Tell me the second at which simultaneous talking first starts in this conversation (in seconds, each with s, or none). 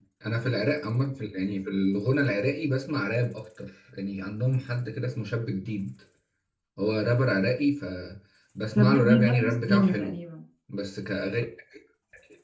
8.8 s